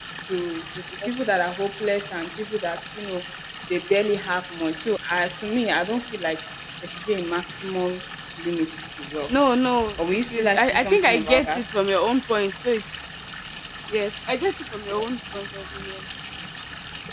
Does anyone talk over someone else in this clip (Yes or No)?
Yes